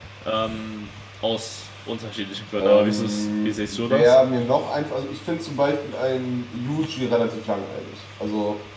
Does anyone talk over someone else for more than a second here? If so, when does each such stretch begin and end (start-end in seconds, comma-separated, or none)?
2.6-4.2